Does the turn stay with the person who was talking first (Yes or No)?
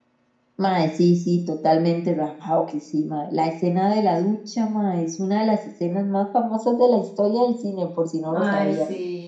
No